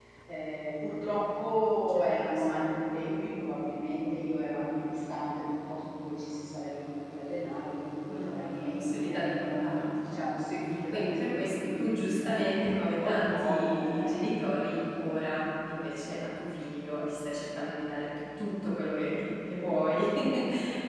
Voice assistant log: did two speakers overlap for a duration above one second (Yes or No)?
Yes